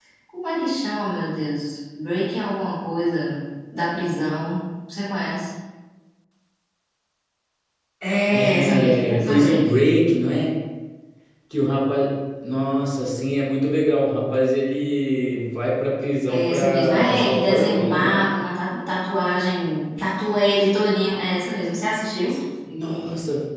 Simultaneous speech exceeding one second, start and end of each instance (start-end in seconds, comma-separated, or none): 8.3-9.7, 16.3-18.2